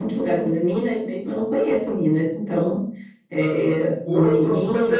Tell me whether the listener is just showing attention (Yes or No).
No